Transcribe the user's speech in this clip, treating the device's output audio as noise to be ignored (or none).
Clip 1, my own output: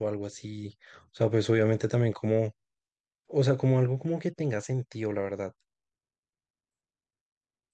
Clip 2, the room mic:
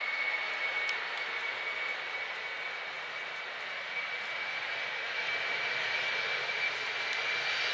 none